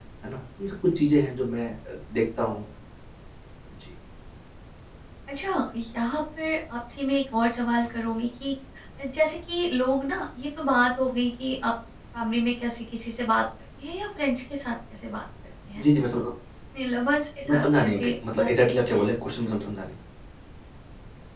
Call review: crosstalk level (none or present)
present